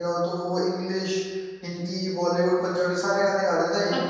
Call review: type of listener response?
taking over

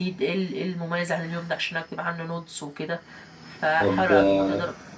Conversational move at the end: taking over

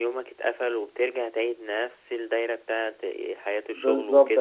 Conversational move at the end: taking over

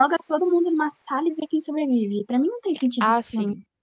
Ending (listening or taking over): taking over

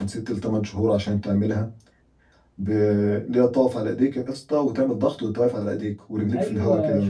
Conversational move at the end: taking over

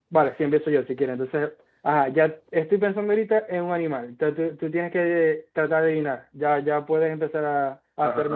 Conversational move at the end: taking over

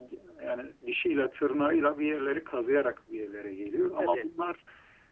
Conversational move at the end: listening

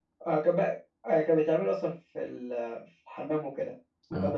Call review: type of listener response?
listening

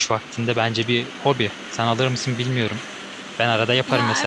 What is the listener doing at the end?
taking over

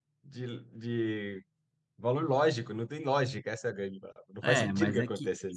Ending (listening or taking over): taking over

